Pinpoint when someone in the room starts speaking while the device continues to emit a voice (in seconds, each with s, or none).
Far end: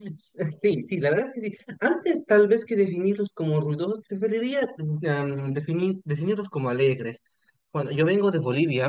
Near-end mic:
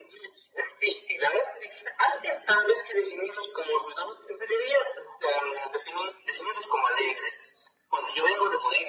none